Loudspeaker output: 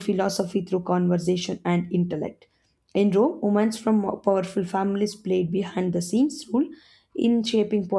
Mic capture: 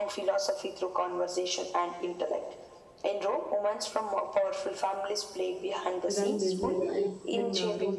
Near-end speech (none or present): present